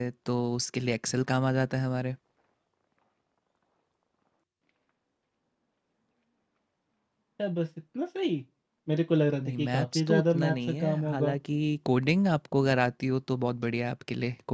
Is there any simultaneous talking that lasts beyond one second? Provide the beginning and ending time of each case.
9.4-11.3

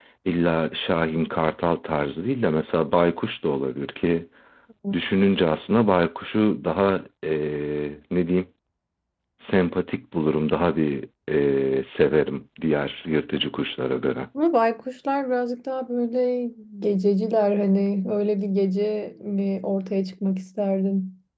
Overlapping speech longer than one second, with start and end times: none

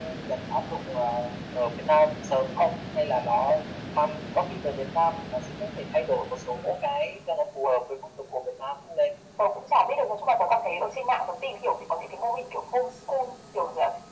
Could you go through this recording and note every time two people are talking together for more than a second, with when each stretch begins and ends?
none

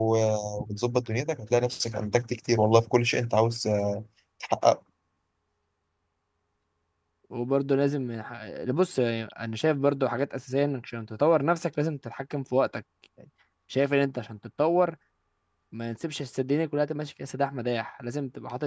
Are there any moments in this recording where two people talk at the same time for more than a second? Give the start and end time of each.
none

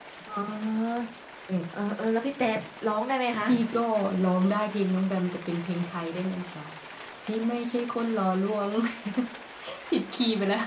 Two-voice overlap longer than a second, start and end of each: none

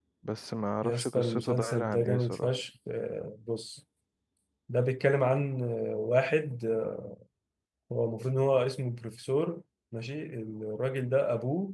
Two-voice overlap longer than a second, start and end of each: 0.8-2.5

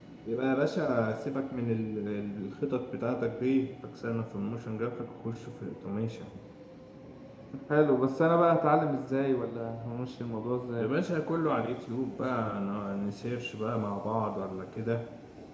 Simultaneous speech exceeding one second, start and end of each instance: none

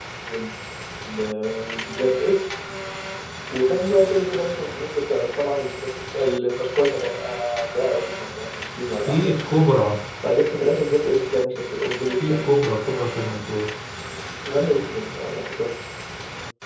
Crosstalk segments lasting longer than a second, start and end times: none

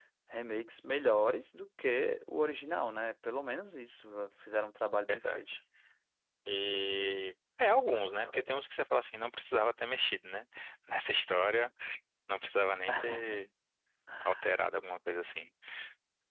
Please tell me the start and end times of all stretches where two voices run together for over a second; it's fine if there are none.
none

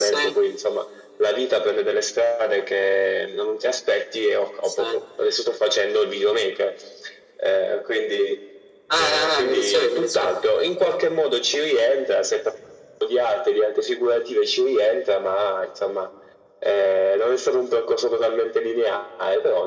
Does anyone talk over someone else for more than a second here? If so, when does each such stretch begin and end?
9.0-11.0

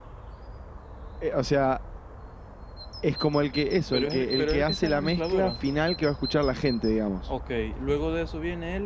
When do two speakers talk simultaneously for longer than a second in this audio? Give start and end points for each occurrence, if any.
3.9-5.6

